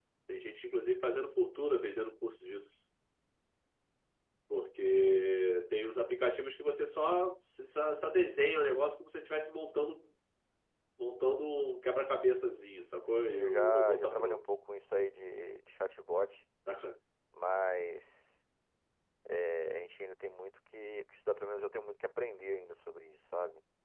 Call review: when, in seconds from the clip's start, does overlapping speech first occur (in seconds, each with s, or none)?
13.1 s